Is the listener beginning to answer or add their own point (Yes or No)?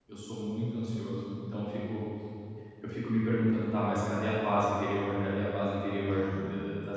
No